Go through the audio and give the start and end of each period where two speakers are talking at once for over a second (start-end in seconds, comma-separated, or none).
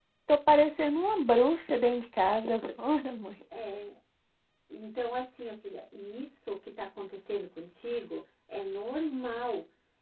none